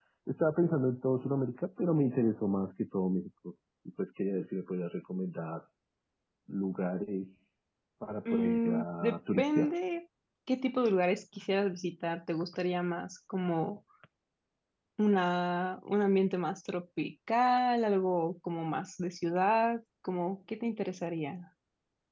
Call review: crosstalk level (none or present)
present